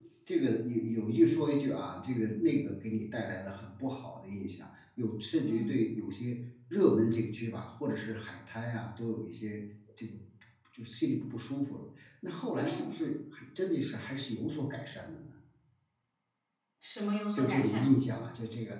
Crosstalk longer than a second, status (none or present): none